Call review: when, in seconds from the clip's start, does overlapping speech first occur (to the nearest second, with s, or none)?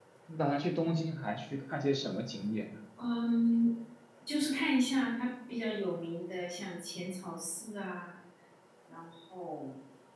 none